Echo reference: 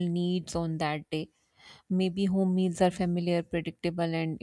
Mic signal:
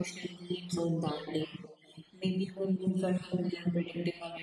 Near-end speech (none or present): none